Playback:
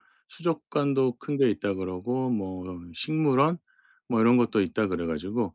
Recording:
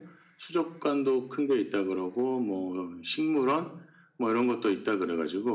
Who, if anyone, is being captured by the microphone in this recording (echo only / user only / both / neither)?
echo only